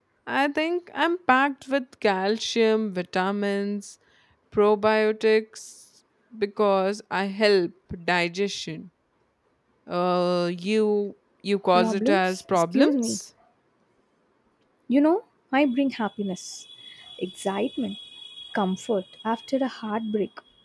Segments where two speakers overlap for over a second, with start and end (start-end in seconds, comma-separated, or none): 11.7-13.2